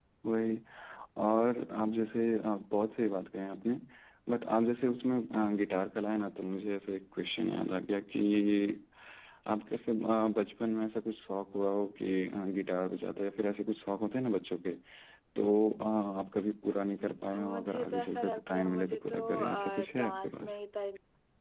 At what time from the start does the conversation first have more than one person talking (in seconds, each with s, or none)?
17.3 s